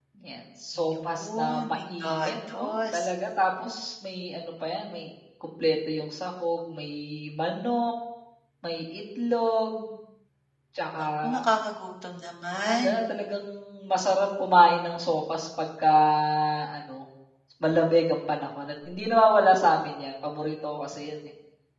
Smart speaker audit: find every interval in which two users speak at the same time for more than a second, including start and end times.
0.8-3.1

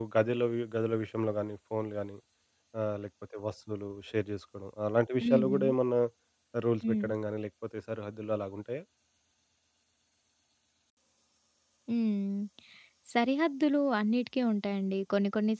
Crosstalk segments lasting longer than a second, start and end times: none

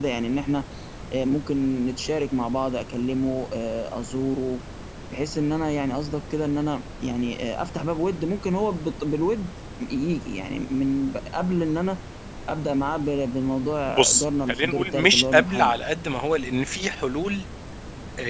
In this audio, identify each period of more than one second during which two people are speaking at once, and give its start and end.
13.9-15.8

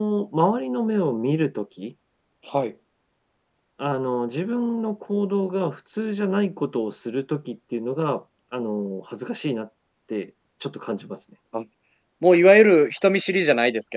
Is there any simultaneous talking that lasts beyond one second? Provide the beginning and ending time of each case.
none

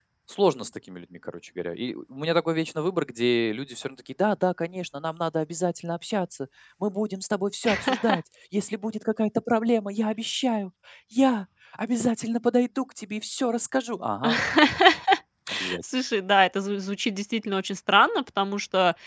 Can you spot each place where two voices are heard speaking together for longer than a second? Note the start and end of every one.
none

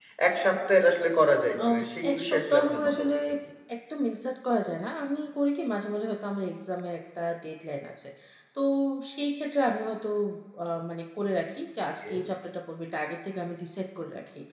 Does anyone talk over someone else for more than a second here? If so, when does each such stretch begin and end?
1.7-3.1

